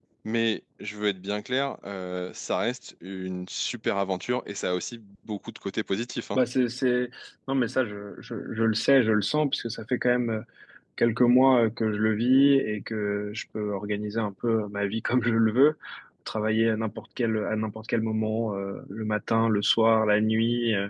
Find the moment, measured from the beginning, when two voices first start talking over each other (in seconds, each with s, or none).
none